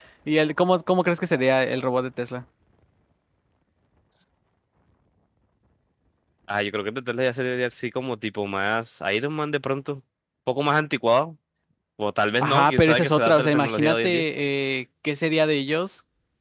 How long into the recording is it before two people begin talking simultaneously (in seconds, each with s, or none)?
12.4 s